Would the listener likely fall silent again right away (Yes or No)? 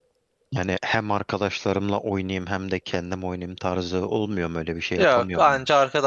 No